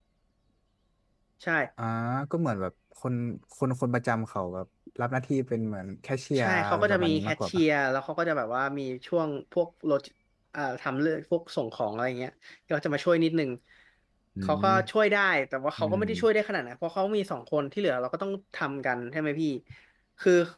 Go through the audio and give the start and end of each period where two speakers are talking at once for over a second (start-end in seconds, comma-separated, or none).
6.4-7.6